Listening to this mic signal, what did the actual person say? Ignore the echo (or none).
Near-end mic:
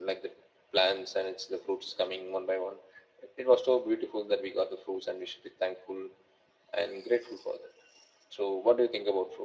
none